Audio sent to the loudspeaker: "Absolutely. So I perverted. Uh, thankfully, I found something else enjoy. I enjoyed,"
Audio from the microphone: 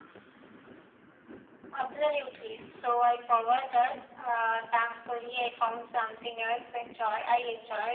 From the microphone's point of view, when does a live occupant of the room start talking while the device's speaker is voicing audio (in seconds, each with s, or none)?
none